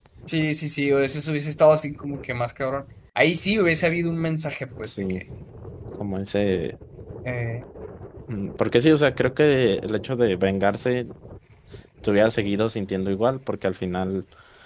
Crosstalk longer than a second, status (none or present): none